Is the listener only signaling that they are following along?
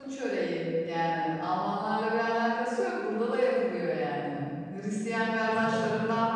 Yes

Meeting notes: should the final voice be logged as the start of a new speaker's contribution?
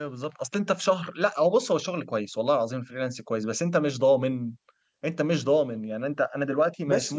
No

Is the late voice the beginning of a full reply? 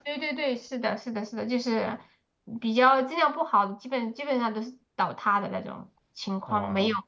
No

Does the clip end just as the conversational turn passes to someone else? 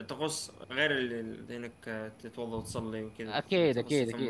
Yes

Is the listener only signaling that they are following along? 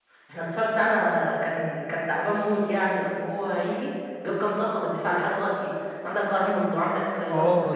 No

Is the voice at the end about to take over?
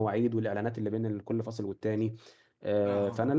No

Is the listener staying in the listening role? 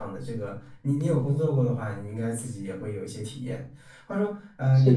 Yes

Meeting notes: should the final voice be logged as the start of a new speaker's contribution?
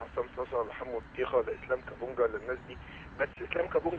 No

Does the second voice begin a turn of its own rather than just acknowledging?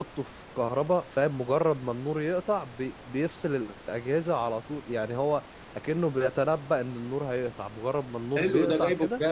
Yes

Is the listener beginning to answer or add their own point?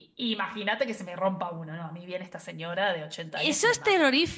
Yes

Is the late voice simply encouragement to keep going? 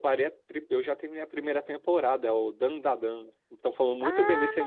No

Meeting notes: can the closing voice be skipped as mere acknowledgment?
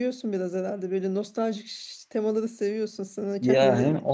No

